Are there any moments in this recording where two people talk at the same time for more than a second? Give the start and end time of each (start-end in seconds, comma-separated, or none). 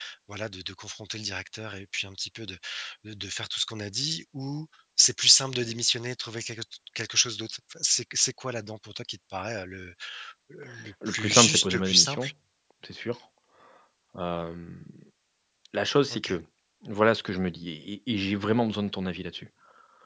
11.1-12.3